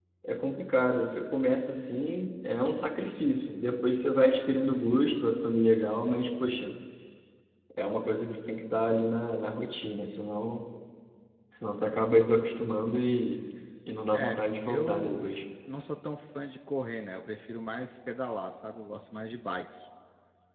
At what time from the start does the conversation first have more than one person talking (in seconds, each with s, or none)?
14.1 s